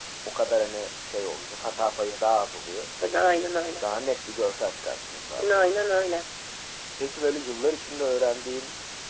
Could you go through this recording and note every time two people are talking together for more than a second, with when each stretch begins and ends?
none

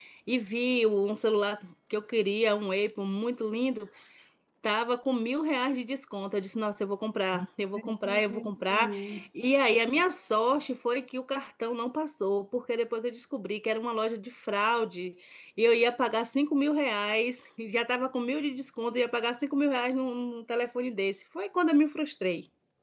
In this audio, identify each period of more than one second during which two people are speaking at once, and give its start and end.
7.8-9.0

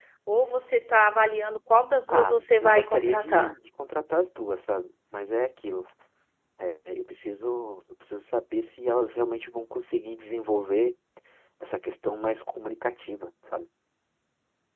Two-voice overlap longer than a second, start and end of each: 2.1-3.5

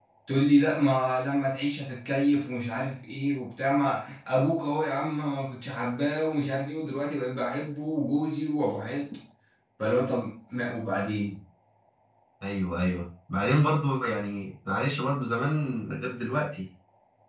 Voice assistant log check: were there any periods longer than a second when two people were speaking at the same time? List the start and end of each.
none

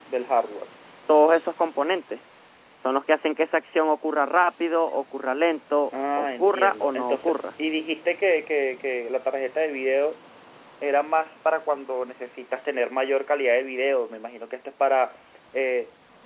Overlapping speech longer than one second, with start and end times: 5.9-7.3

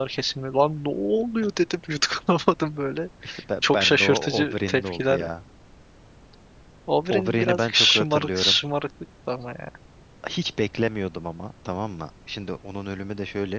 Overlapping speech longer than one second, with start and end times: 3.6-5.2, 7.1-8.6

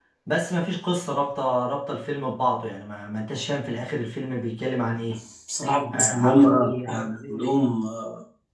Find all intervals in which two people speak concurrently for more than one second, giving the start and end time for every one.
5.9-7.6

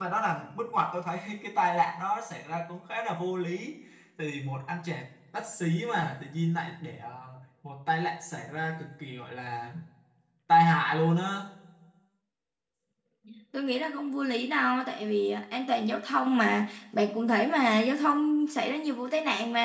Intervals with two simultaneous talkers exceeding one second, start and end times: none

